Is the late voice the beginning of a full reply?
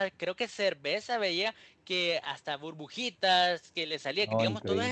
No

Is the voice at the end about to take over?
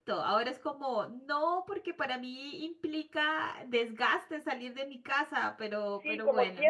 Yes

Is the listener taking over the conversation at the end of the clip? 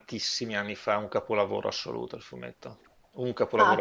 Yes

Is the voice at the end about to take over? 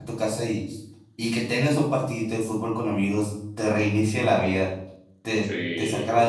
No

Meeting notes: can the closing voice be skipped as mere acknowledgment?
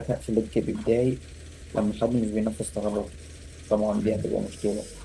Yes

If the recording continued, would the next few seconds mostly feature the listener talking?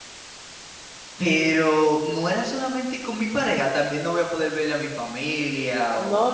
Yes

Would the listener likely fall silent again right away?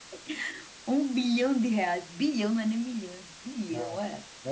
No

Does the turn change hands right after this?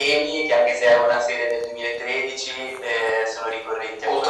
Yes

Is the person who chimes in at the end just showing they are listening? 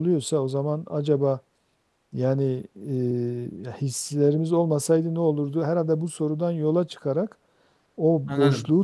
Yes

